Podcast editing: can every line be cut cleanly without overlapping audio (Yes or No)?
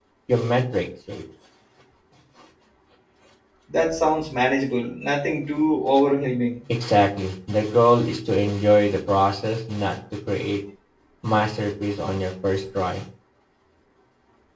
Yes